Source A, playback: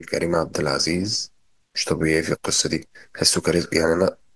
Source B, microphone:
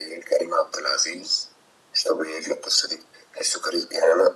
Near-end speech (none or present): none